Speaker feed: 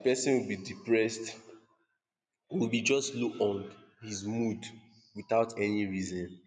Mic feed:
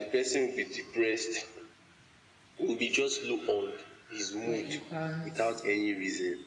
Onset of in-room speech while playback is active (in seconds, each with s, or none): 4.4 s